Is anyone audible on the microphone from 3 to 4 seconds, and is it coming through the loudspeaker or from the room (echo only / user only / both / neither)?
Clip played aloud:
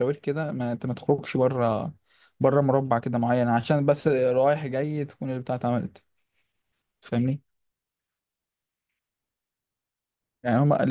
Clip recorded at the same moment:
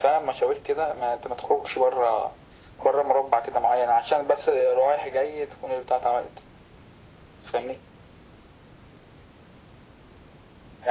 echo only